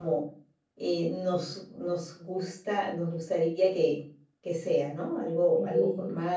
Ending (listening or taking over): taking over